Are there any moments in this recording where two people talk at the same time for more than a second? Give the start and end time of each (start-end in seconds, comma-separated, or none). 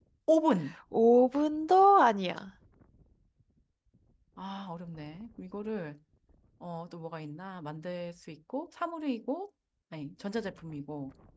none